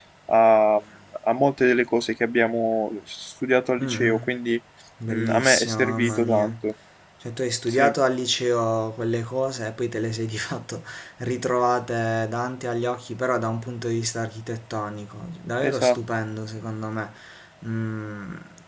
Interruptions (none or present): present